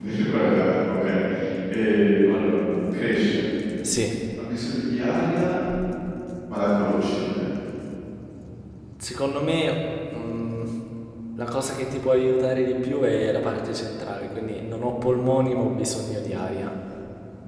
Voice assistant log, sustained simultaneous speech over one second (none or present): none